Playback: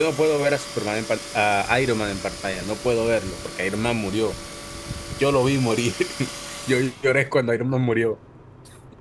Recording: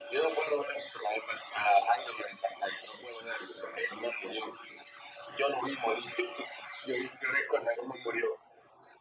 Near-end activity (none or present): none